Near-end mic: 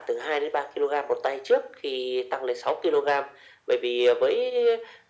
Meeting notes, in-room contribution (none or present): none